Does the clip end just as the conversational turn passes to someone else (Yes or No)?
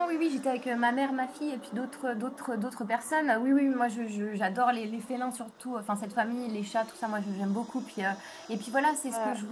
No